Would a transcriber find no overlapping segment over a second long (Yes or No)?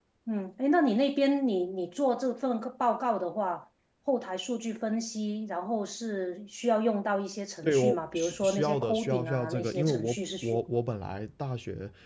No